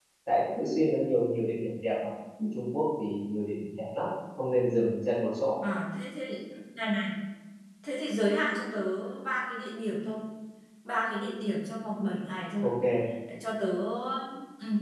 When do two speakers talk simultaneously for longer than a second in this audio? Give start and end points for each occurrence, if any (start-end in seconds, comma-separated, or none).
none